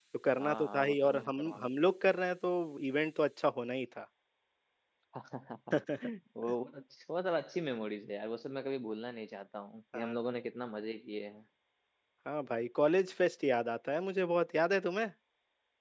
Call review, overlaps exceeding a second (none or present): present